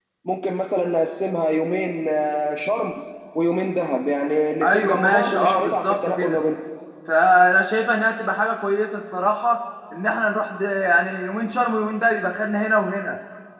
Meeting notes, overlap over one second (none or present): present